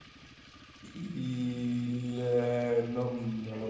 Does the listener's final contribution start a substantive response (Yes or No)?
Yes